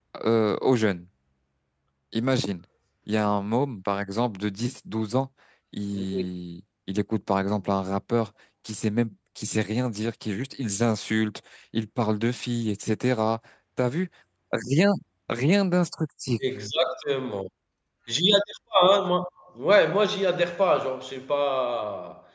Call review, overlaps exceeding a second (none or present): none